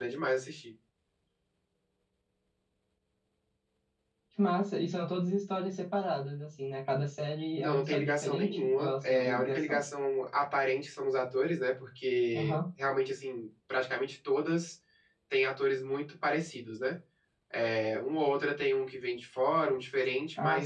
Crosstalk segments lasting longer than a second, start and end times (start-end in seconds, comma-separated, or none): 7.6-9.8